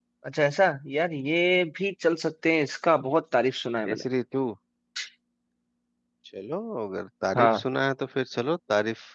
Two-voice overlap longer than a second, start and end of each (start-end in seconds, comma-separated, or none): none